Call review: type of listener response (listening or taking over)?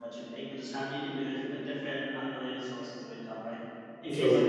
listening